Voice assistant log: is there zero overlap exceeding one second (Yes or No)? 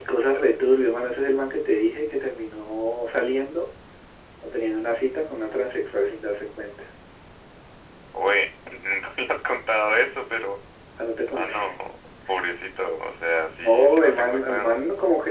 No